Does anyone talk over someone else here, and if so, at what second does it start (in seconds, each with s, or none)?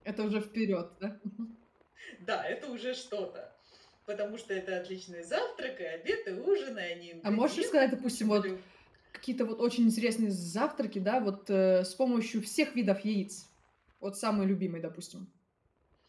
7.2 s